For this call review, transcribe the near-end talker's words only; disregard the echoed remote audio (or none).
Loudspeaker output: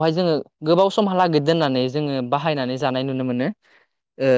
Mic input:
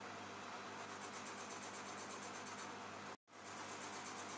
none